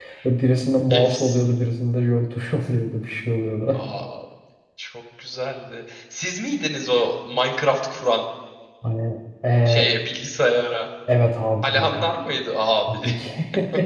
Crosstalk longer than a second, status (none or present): none